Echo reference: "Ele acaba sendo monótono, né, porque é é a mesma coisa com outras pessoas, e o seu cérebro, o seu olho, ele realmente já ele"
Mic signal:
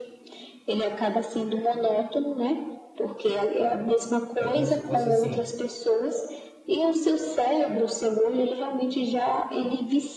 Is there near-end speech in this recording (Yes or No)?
Yes